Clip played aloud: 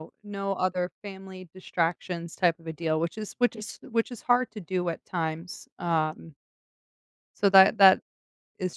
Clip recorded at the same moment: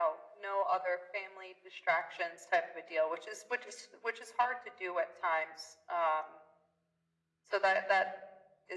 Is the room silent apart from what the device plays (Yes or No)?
Yes